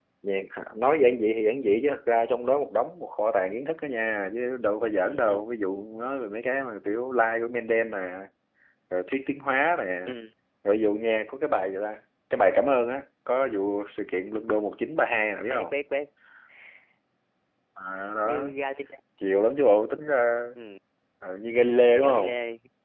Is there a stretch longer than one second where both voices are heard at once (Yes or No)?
No